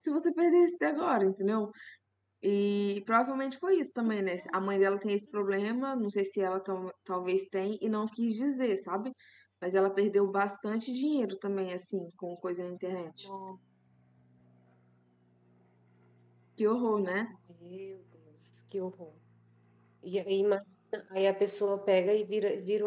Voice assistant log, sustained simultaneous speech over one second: none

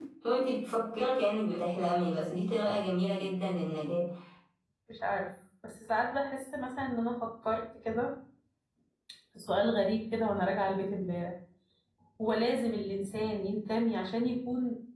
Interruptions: none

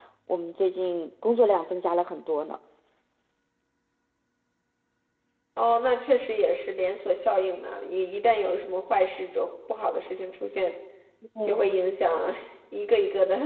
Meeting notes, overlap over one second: none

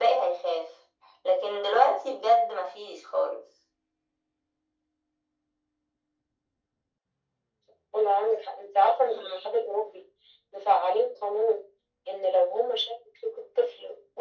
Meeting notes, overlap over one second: none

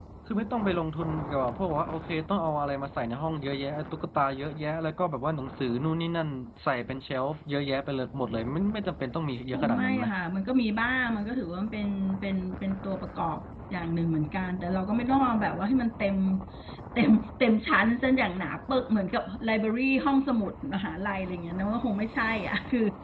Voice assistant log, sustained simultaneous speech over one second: none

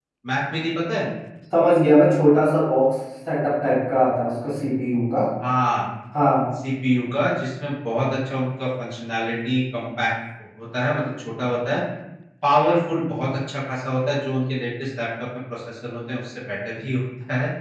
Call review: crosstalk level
none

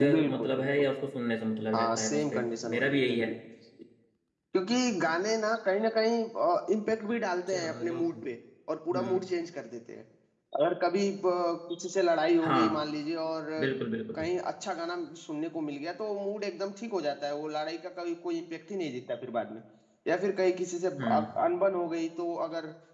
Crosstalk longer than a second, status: present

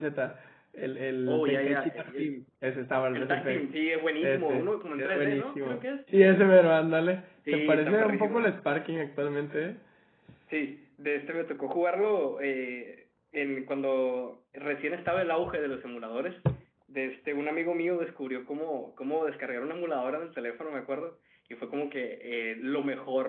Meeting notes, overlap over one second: present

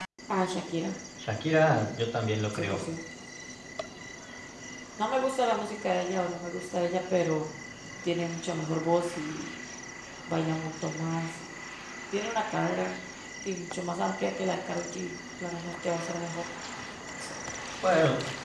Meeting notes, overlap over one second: none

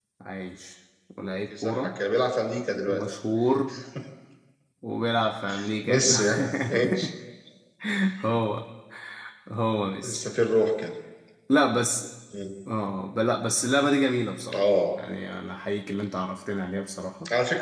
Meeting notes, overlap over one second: none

